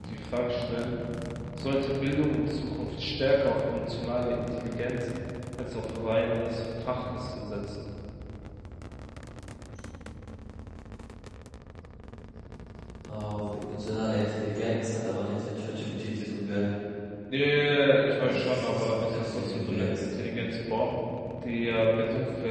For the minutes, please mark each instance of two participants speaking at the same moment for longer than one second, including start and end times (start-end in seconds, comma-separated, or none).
18.2-20.0